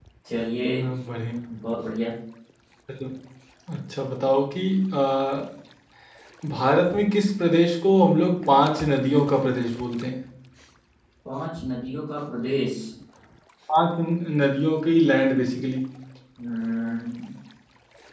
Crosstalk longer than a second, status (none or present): none